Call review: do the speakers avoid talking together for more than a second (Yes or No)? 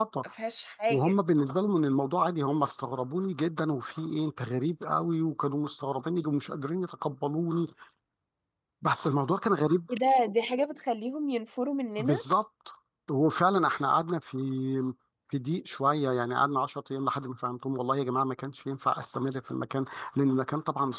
Yes